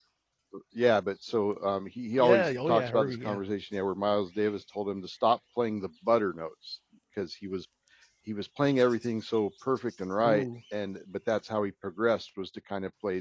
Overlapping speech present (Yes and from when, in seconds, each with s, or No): Yes, from 2.2 s